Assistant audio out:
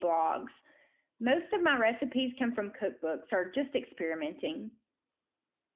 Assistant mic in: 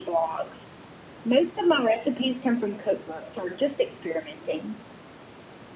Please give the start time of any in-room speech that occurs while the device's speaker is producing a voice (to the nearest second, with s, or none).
none